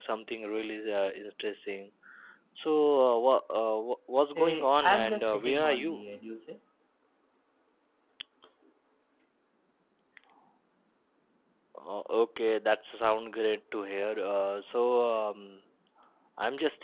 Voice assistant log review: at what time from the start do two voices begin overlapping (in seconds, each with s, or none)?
4.3 s